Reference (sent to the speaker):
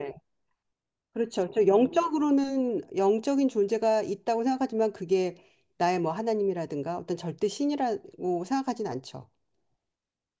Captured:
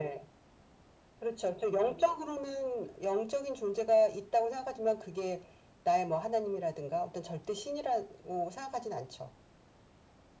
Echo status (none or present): present